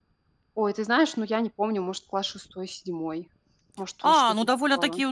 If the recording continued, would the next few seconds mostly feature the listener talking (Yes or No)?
Yes